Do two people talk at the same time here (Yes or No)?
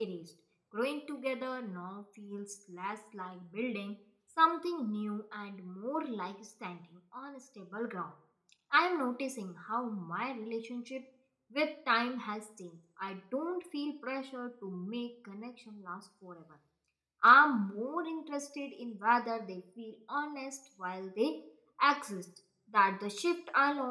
No